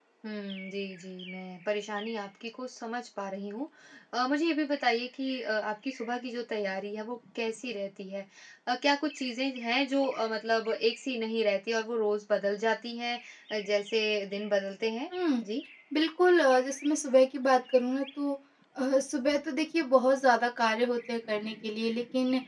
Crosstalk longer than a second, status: none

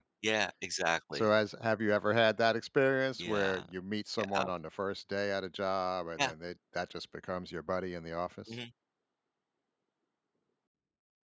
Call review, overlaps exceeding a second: none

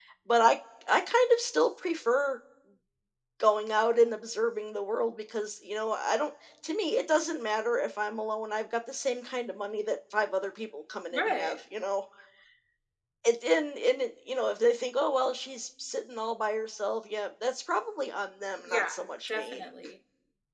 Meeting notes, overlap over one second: none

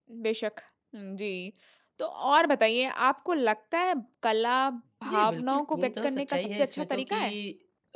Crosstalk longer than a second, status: present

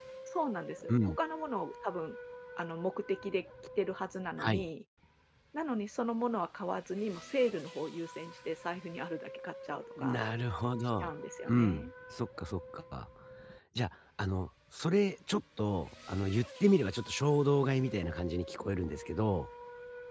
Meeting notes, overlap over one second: none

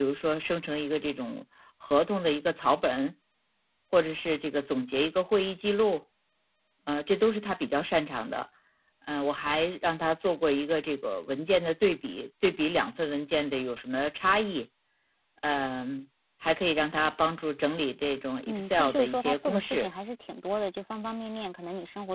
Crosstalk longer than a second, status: present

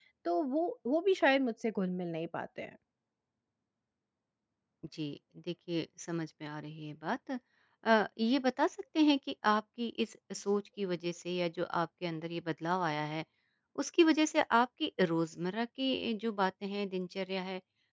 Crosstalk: none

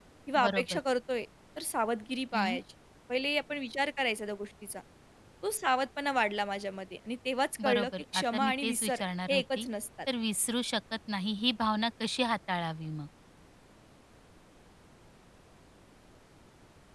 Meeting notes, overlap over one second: present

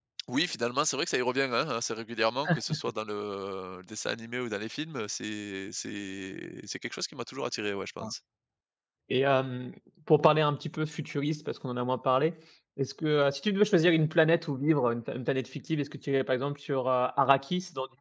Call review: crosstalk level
none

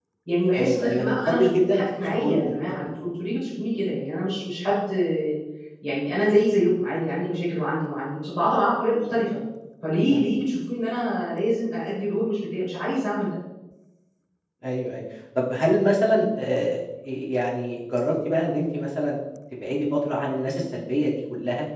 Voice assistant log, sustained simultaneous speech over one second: present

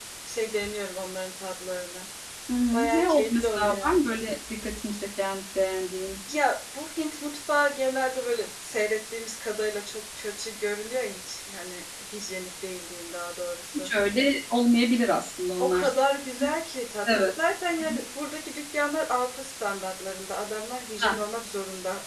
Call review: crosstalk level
present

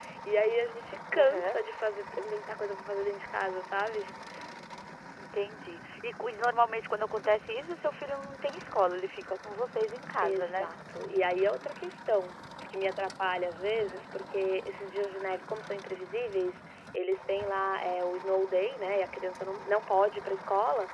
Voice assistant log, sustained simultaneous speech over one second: none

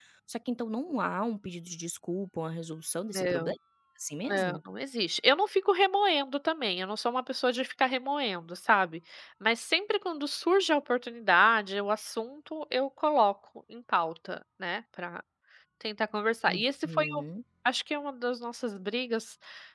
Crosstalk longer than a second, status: none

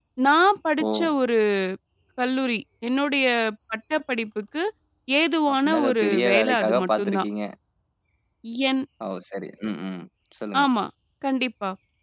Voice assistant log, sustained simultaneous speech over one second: present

